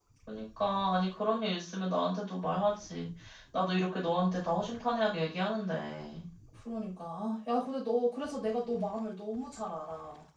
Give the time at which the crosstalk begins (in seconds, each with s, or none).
none